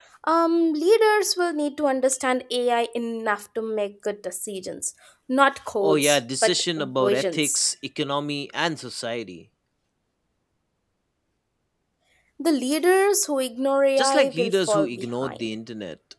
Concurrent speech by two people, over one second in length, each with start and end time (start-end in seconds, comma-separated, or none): 5.8-7.6, 14.0-15.5